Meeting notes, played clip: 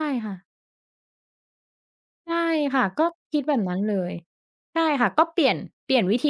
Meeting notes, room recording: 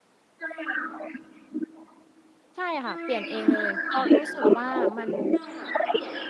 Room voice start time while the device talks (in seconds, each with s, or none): 2.6 s